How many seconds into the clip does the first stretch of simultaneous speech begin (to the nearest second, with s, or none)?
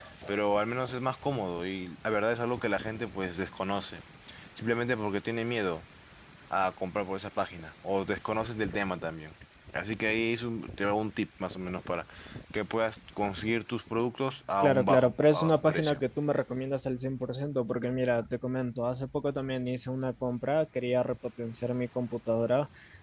15 s